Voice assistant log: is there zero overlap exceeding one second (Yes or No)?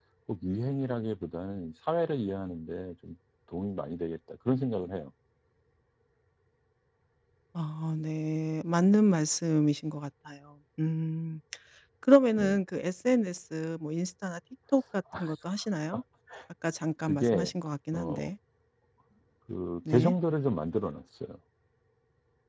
Yes